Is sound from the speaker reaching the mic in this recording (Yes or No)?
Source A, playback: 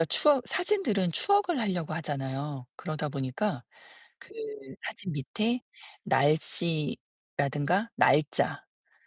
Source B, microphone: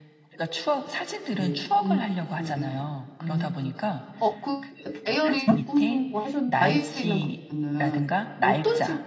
Yes